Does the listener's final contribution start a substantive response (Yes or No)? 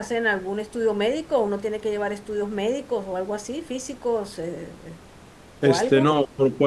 Yes